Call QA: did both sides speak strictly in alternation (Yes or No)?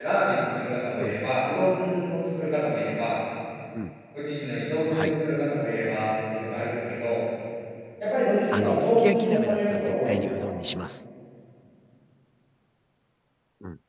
No